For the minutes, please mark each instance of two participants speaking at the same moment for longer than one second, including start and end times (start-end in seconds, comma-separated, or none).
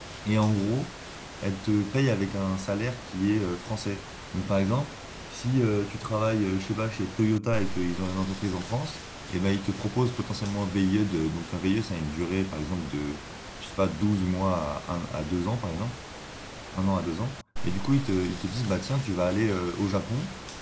none